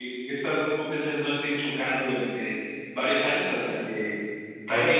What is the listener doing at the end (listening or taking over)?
listening